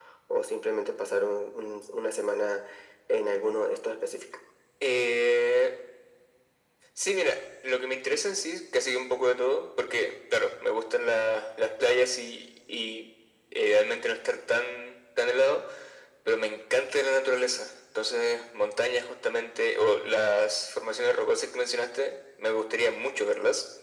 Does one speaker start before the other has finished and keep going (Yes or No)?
No